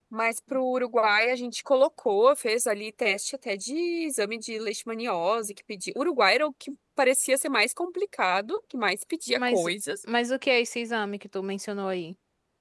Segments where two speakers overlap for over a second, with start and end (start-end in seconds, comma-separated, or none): none